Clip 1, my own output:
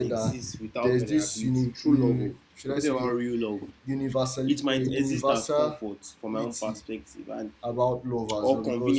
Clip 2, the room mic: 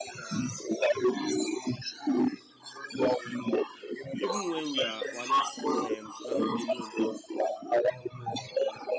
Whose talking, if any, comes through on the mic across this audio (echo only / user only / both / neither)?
both